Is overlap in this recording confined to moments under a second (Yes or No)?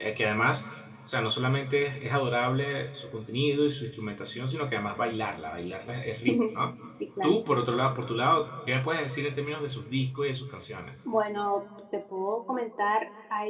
Yes